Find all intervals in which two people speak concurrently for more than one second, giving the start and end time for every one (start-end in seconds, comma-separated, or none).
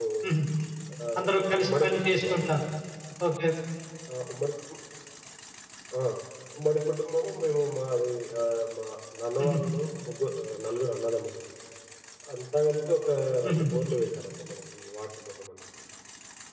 1.2-2.5